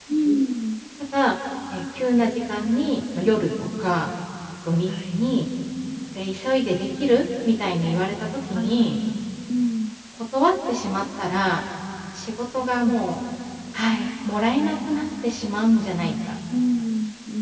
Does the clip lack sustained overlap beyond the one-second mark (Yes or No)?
Yes